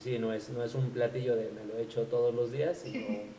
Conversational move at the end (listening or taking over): listening